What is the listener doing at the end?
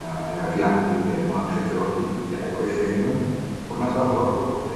listening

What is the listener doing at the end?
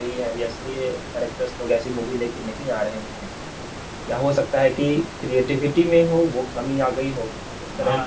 taking over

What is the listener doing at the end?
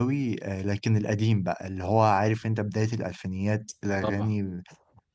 listening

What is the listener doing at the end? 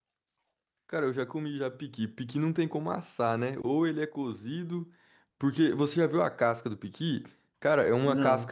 listening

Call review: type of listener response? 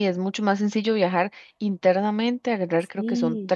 listening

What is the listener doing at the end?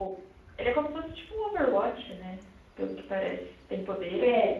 taking over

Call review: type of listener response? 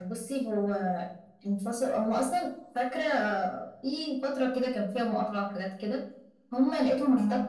listening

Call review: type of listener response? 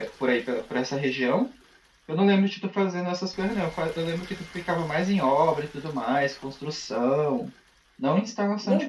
taking over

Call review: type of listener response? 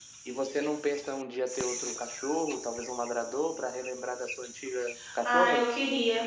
taking over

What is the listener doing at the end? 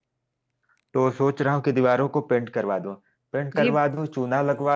listening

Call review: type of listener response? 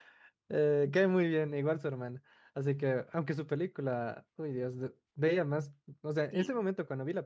listening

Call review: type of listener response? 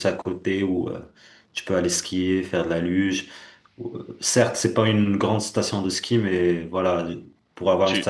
listening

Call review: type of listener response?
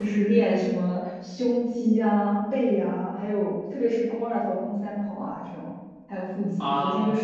listening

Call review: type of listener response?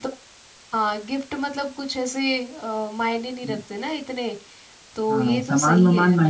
taking over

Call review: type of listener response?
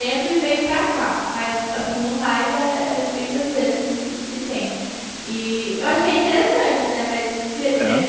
listening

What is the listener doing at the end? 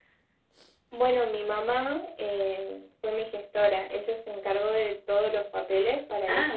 listening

